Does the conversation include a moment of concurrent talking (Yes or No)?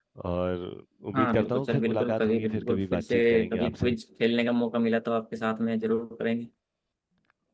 Yes